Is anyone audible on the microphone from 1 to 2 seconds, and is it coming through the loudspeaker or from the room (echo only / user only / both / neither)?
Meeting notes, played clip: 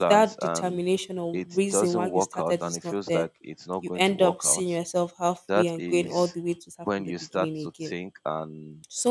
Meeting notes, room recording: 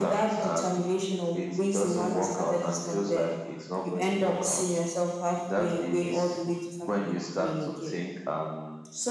echo only